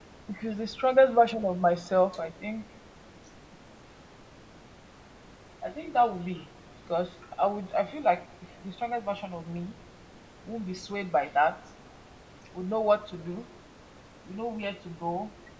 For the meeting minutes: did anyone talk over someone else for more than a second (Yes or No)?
No